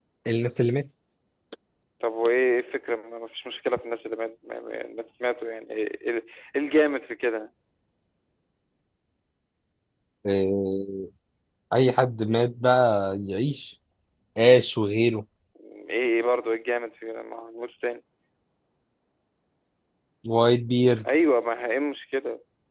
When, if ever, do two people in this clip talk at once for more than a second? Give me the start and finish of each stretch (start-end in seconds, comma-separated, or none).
none